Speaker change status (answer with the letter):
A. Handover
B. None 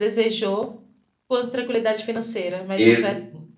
A